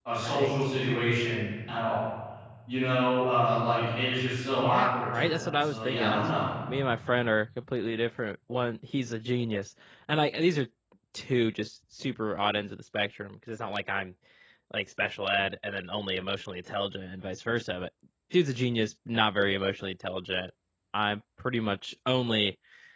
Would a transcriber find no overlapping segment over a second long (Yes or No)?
No